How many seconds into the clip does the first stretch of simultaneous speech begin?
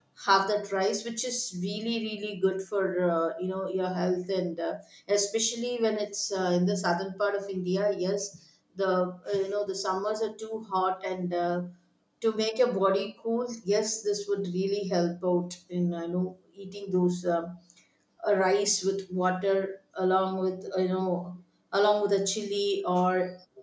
none

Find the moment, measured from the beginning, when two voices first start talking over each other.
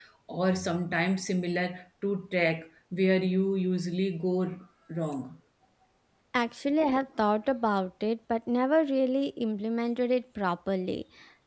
none

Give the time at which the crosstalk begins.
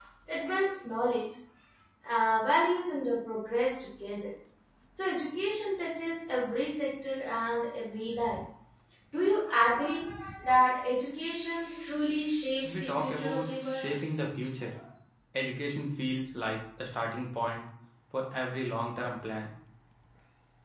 12.6 s

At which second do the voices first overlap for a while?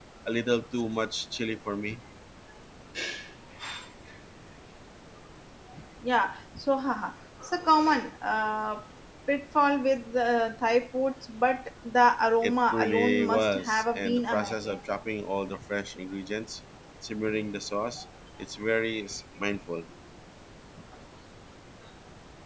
12.4 s

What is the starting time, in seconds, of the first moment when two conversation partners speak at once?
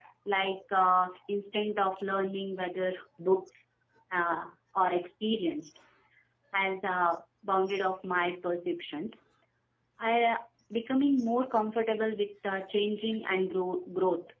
none

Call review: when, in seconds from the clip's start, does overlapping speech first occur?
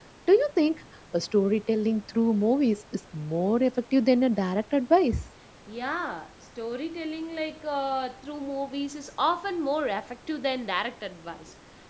none

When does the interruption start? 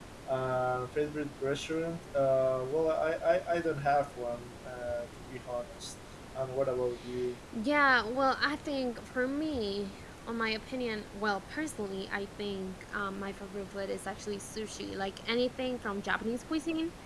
none

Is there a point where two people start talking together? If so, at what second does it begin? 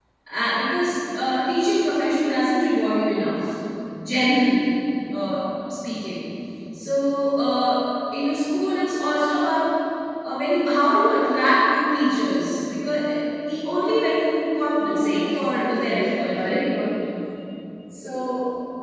14.8 s

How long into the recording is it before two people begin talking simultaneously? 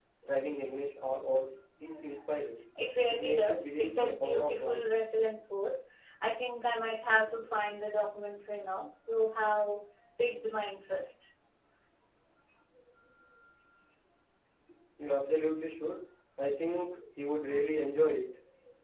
3.1 s

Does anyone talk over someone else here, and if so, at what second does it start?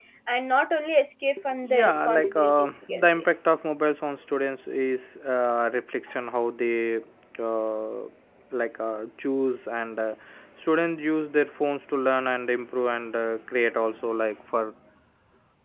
1.6 s

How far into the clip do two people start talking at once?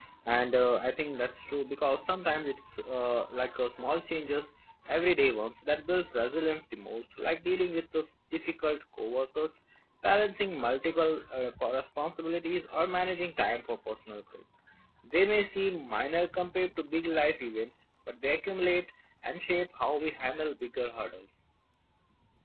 none

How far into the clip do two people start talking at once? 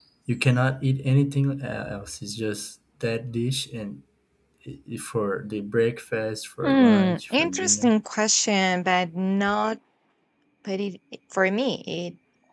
6.6 s

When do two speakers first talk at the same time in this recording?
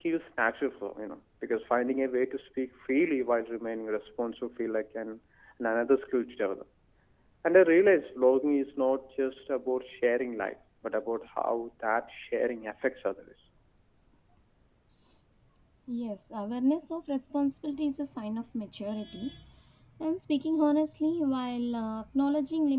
none

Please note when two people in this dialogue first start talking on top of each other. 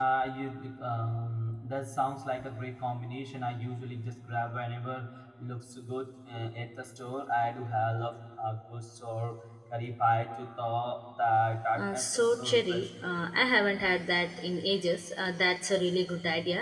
11.8 s

